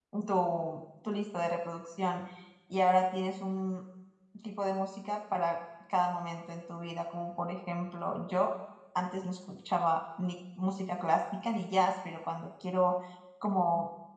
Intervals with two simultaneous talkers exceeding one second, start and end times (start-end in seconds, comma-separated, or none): none